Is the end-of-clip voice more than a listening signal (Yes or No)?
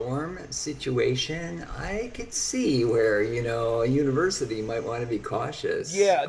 Yes